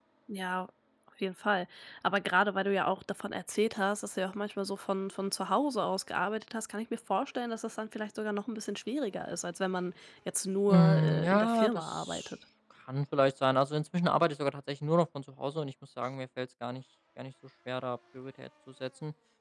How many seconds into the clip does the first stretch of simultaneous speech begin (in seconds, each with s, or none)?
10.7 s